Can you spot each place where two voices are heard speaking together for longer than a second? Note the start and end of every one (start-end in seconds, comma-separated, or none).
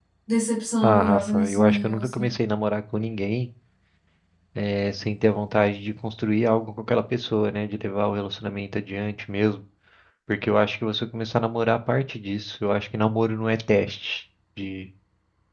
0.8-2.3